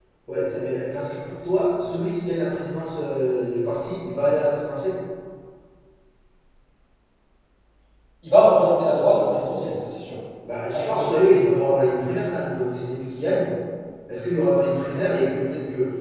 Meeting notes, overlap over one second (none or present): none